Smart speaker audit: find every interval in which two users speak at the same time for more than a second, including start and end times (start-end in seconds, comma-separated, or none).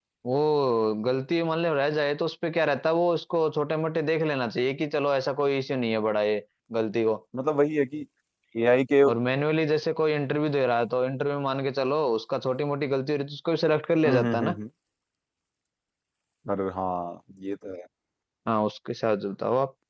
none